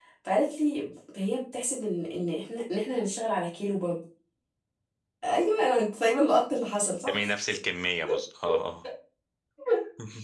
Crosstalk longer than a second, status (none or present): none